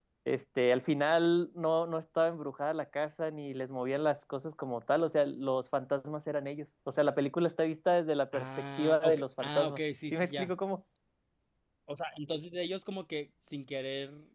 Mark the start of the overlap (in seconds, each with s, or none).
8.3 s